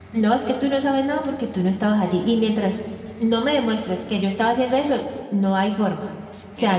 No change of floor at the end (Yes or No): No